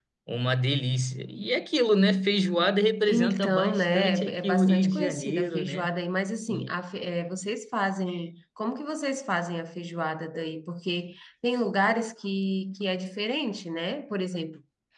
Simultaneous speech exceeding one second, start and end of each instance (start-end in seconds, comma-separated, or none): 3.1-5.9